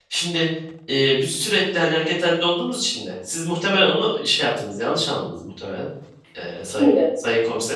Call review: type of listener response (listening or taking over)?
listening